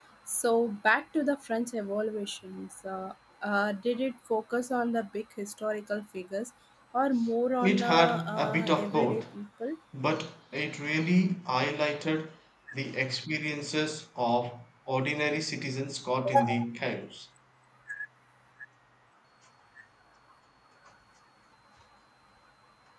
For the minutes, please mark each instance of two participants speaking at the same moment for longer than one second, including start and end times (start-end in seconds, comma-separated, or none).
7.6-9.2